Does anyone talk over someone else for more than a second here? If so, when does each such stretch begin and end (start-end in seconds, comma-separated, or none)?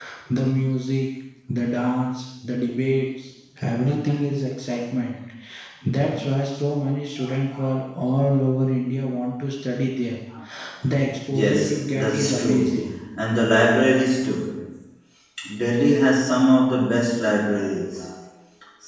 11.3-12.9